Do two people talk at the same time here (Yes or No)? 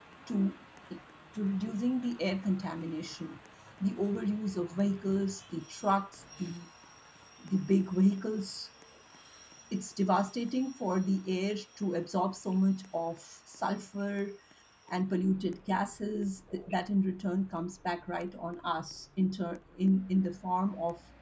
No